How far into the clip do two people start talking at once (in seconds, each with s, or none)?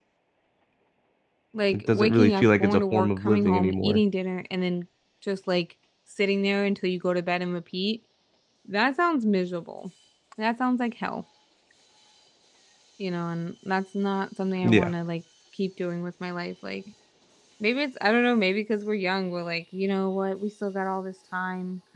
1.7 s